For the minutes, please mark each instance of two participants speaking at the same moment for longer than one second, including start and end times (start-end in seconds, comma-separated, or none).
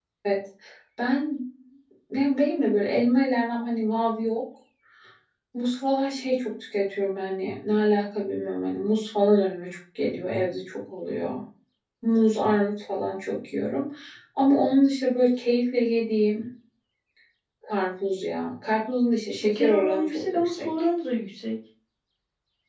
19.3-20.7